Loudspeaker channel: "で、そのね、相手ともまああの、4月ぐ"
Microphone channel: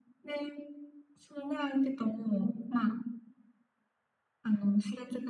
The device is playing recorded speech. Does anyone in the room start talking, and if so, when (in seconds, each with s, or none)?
none